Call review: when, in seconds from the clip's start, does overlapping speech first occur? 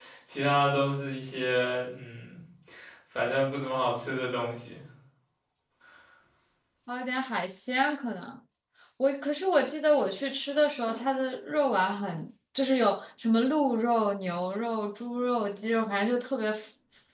none

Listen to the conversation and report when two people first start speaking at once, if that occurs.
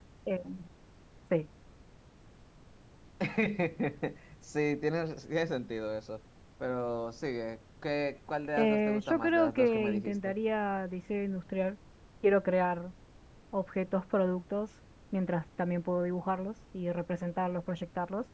9 s

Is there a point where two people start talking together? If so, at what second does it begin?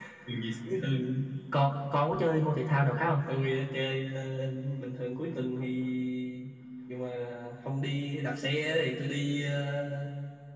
none

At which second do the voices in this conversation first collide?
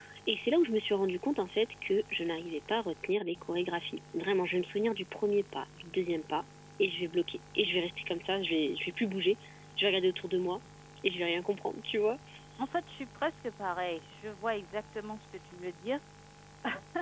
none

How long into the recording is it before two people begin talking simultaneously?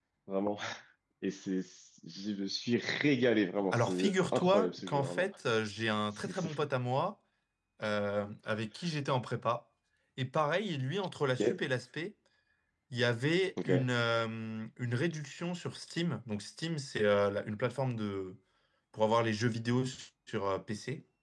4 s

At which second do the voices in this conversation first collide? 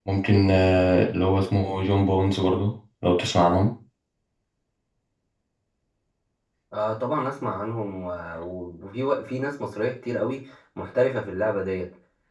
none

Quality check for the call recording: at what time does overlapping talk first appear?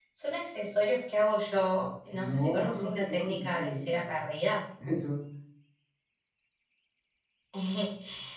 2 s

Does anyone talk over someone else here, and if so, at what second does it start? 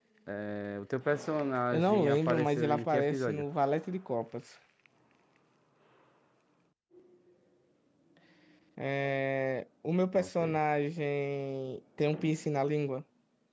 2 s

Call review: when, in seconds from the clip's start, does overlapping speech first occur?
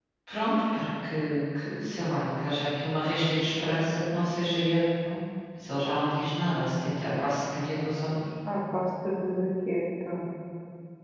none

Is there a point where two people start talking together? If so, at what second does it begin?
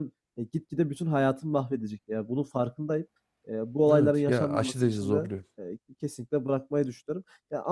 4 s

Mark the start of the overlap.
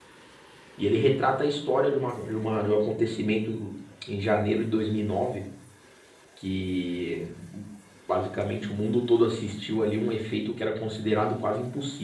none

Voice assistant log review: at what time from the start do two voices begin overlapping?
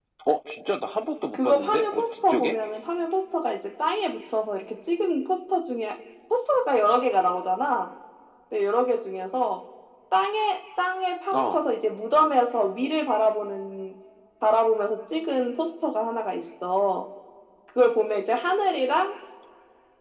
1 s

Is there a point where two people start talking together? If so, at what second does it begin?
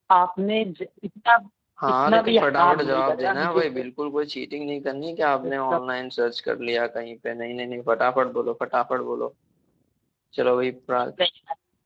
2 s

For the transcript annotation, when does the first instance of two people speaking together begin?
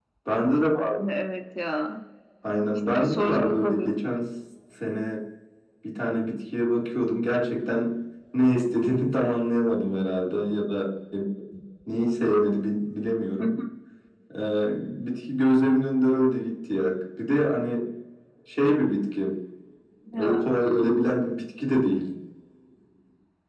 3 s

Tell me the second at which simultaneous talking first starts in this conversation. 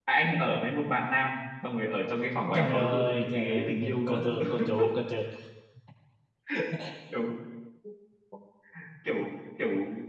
3 s

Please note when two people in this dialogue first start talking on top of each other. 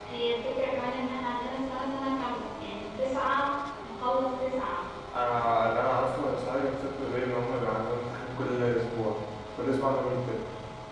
none

